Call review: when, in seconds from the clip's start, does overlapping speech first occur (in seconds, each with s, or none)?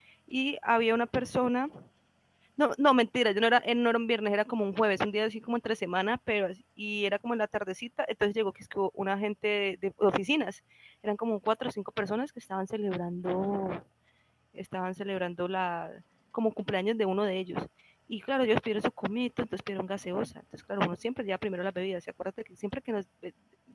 none